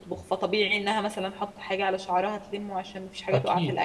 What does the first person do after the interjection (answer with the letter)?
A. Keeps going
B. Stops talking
A